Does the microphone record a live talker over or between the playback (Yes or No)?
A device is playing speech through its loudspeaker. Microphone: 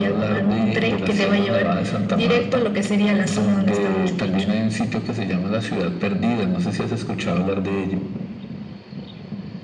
No